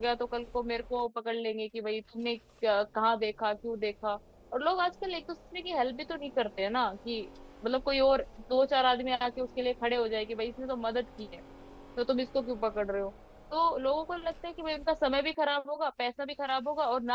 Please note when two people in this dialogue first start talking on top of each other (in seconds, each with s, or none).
none